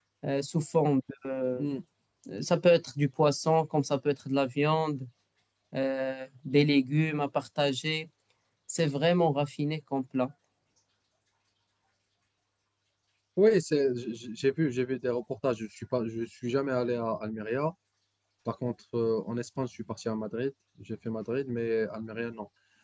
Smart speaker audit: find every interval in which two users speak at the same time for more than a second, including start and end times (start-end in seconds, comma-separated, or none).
none